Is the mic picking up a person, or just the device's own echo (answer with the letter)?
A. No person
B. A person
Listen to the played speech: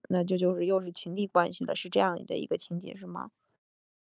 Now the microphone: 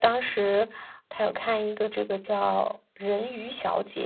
B